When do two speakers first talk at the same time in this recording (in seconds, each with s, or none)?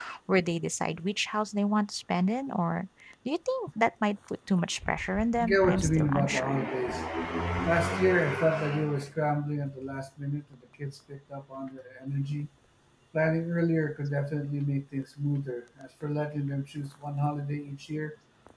5.4 s